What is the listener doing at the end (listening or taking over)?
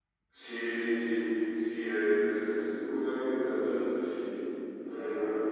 listening